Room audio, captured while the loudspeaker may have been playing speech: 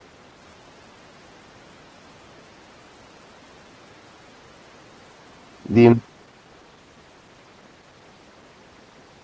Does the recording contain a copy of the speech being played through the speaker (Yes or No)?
No